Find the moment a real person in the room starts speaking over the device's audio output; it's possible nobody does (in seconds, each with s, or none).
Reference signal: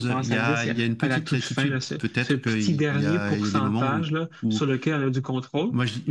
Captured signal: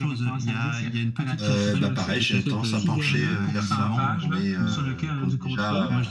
1.4 s